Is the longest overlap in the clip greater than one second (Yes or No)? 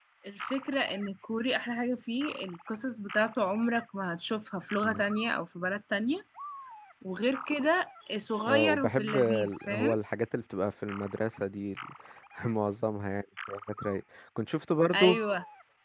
Yes